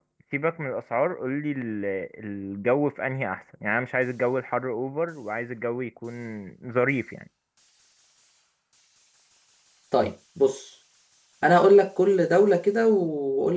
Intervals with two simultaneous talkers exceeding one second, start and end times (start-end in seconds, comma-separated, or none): none